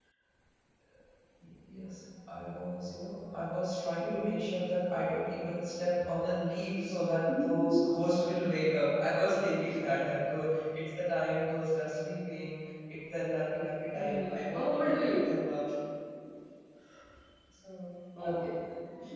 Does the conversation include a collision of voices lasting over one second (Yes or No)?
Yes